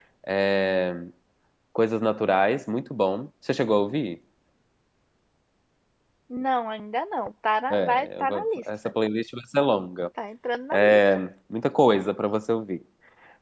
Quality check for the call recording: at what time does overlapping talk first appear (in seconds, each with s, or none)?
7.7 s